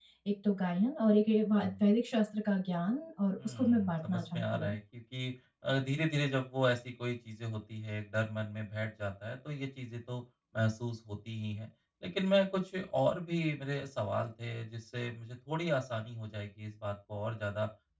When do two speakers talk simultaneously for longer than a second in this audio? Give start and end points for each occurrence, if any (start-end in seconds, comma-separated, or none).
3.4-4.8